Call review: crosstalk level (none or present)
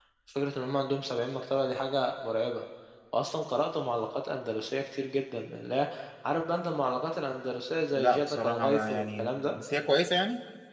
present